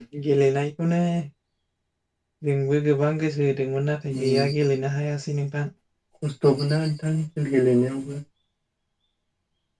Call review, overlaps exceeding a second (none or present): none